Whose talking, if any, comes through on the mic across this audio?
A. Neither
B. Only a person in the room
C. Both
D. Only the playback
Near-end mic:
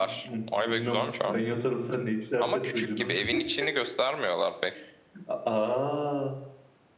C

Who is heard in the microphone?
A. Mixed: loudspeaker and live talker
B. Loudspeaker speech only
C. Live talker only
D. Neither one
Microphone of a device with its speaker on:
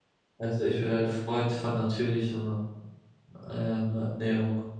C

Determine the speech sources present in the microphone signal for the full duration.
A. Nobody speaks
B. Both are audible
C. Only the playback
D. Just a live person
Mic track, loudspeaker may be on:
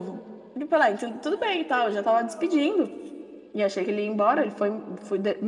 B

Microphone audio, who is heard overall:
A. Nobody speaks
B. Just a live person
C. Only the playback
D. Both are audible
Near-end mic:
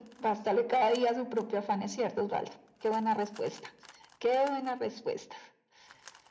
C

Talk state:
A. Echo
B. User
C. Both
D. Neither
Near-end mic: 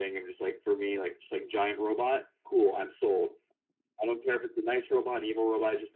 A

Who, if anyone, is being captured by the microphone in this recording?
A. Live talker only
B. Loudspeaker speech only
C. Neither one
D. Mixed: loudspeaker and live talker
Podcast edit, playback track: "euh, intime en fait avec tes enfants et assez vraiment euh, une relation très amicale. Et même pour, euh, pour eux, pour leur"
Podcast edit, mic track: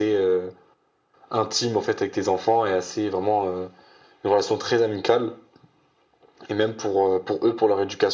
B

